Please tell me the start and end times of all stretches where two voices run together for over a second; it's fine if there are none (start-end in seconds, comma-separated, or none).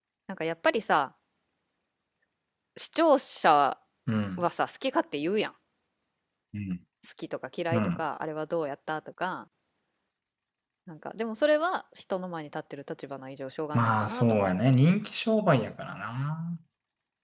13.7-15.0